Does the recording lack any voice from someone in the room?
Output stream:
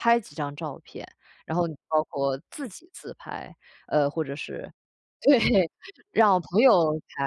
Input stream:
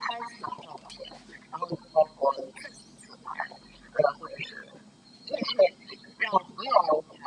Yes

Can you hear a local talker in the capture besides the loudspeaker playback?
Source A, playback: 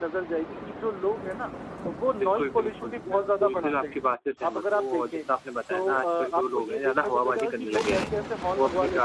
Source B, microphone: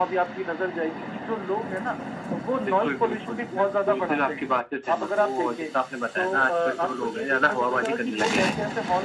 No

